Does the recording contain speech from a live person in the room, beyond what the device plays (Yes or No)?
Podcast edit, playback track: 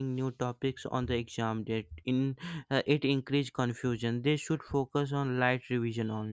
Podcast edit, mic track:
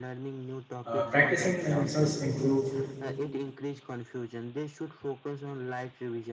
Yes